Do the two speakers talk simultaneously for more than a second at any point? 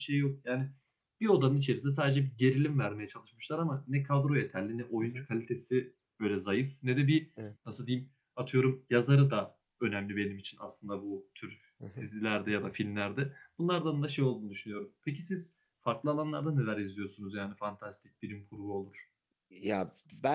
No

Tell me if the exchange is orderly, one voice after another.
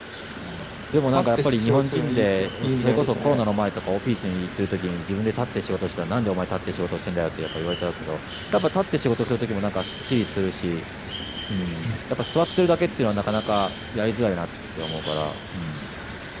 No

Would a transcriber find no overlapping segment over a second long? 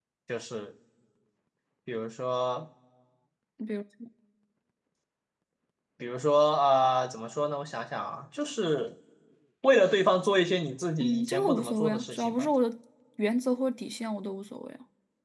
No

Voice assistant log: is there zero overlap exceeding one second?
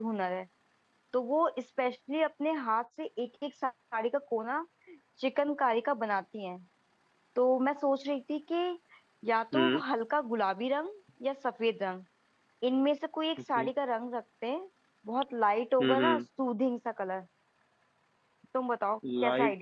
Yes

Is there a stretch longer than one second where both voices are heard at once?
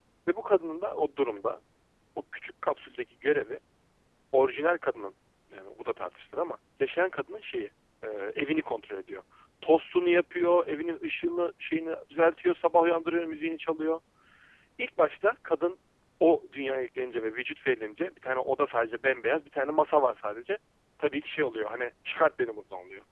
No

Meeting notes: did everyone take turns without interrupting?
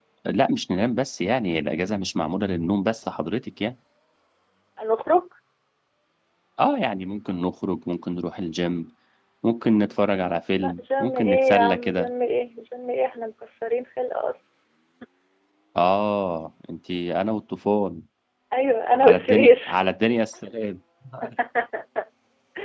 No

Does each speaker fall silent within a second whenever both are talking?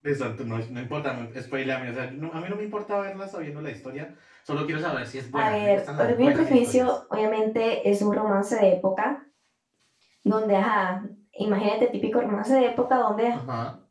No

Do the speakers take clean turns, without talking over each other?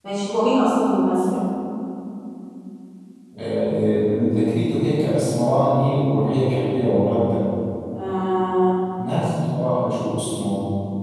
Yes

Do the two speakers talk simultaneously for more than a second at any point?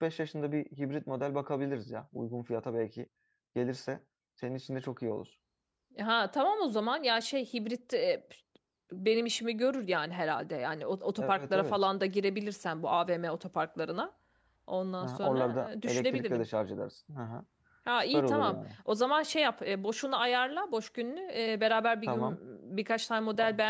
Yes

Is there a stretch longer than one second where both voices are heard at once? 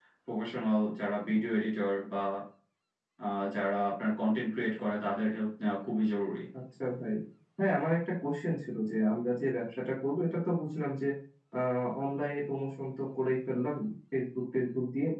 No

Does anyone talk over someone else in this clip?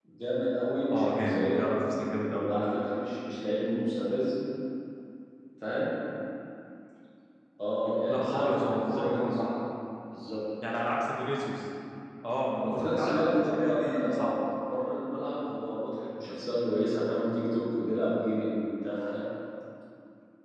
Yes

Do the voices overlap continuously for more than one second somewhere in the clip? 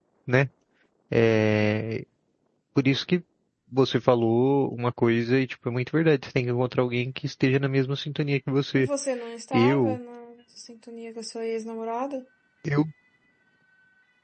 No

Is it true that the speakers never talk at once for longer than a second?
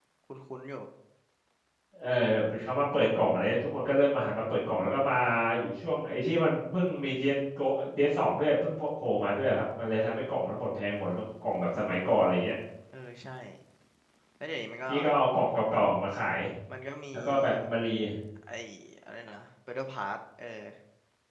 Yes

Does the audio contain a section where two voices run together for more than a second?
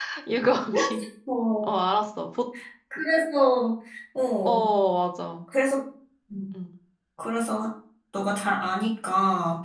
No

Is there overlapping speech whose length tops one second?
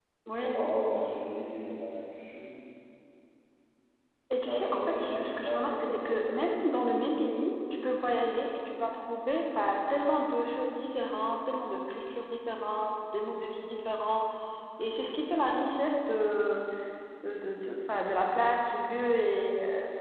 Yes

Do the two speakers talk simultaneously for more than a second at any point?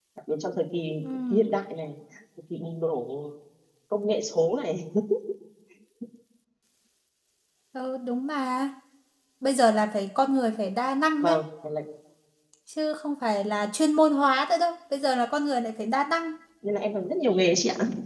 No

